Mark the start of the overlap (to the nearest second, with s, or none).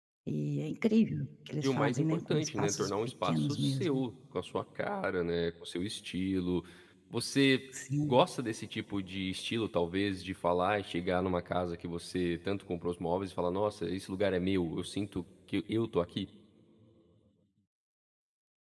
2 s